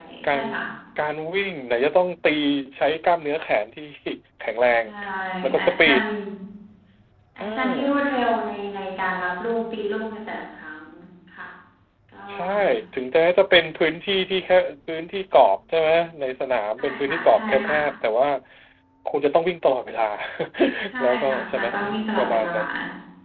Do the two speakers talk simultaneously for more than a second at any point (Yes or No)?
Yes